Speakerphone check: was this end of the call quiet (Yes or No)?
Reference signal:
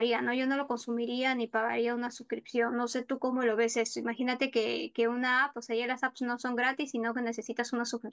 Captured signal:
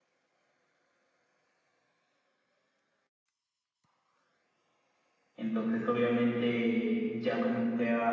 No